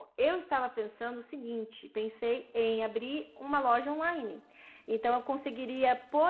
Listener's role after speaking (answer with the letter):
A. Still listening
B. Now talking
A